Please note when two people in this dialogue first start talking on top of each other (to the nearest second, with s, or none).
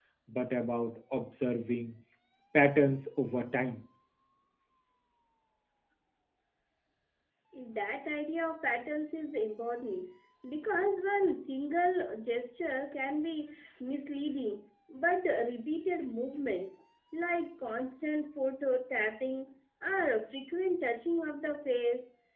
none